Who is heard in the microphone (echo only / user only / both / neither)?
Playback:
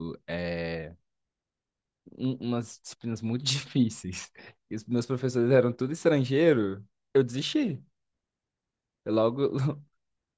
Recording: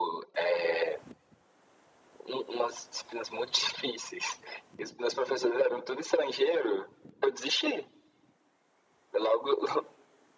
echo only